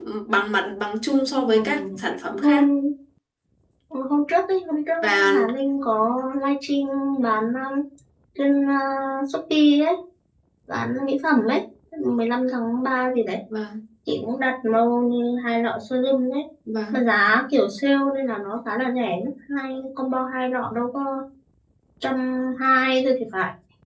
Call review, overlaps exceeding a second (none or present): none